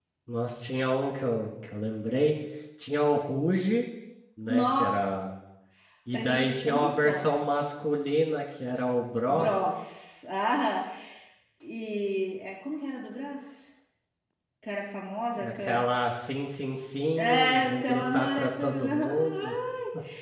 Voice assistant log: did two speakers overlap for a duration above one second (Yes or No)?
Yes